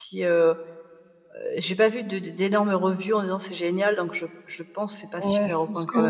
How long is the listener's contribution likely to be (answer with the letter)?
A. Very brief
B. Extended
B